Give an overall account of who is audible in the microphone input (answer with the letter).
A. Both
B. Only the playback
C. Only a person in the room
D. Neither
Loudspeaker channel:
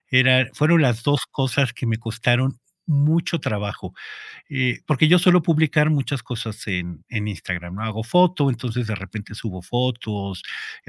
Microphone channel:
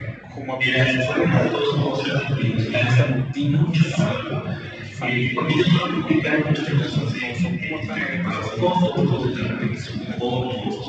A